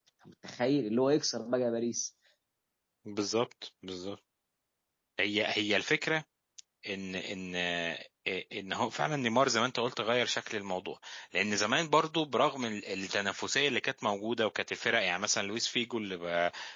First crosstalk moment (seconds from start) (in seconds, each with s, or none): none